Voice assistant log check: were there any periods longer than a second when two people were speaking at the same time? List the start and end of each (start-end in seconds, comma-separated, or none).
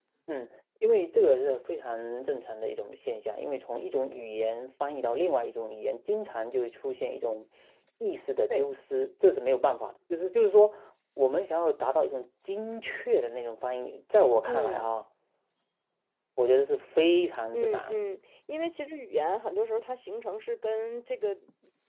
none